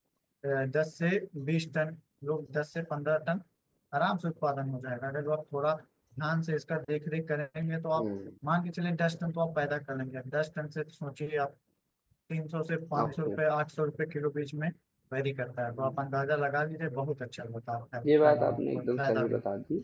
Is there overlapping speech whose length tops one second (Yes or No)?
Yes